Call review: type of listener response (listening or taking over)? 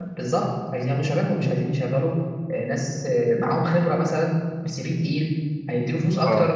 listening